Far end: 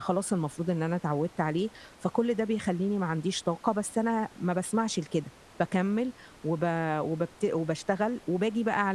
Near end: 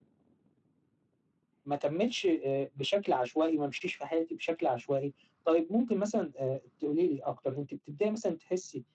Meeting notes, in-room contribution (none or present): present